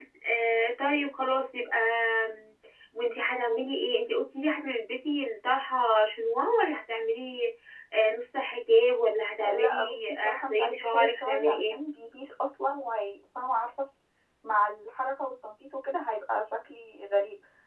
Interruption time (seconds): 9 s

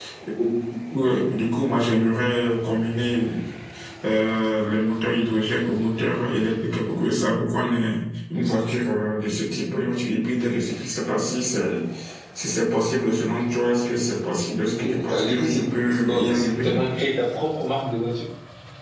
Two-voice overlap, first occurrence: 15 s

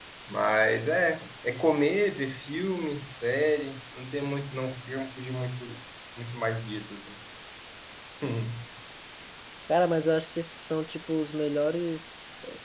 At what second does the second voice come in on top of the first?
none

